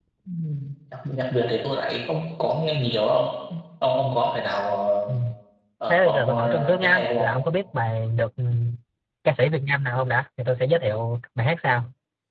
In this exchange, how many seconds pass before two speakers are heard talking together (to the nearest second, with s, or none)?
6 s